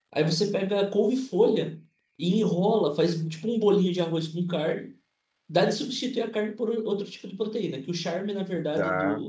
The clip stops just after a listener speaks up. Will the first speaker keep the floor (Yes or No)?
Yes